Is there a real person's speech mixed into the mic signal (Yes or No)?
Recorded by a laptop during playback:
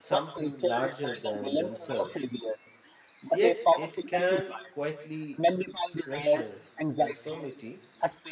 Yes